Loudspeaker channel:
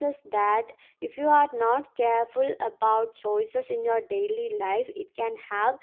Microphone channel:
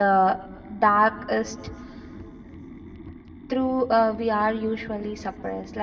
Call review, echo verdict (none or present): none